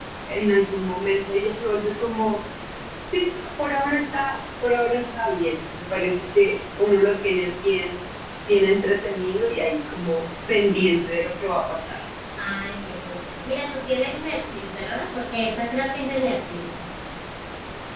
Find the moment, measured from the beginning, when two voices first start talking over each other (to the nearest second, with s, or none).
none